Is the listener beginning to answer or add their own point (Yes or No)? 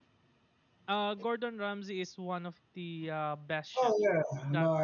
Yes